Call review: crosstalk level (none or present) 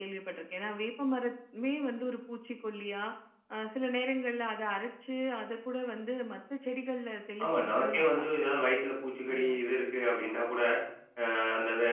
present